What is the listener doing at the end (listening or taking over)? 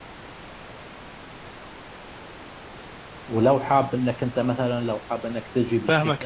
taking over